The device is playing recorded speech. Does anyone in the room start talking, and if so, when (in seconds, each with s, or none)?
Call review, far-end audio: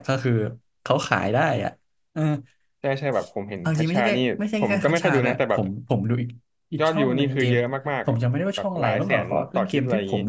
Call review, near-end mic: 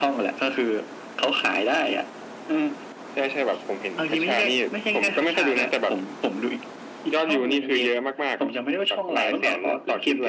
none